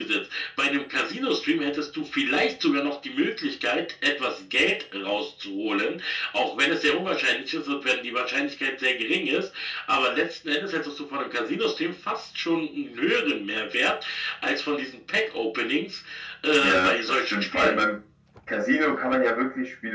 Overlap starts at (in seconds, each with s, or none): 16.6 s